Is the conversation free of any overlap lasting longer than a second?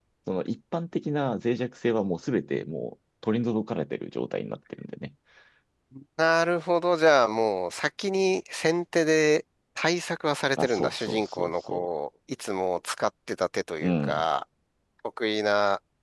No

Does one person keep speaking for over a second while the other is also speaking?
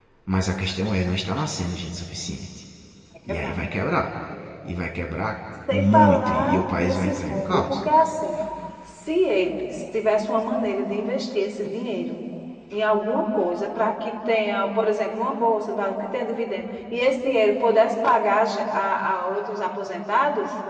Yes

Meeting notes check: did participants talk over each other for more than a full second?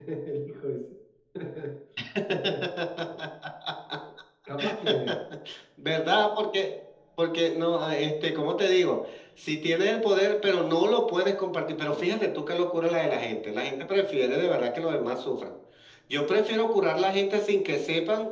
No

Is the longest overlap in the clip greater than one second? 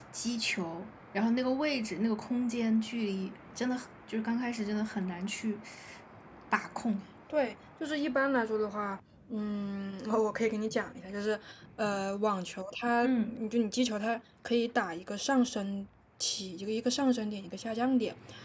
No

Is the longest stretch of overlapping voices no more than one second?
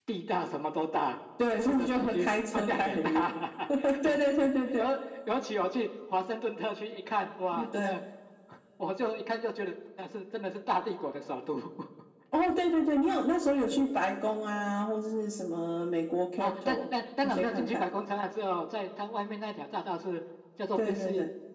No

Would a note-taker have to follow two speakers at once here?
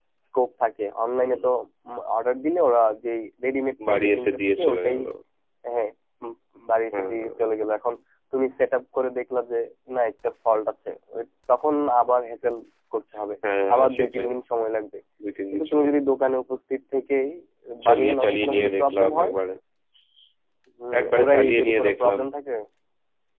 Yes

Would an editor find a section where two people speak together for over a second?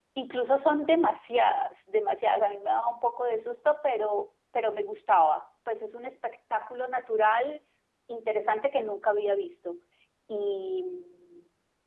No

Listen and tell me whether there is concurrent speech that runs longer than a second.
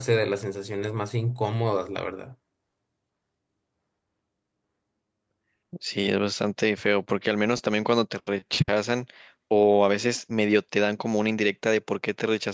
No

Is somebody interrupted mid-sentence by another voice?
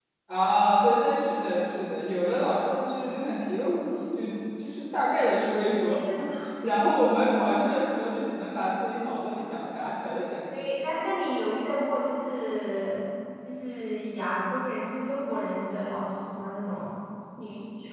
No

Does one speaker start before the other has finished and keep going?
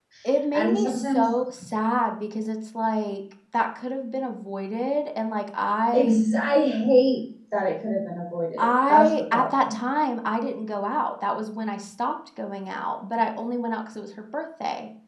Yes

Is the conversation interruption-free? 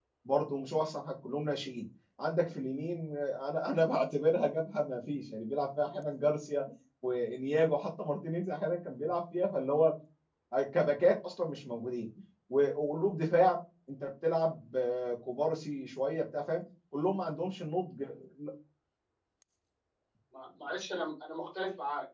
Yes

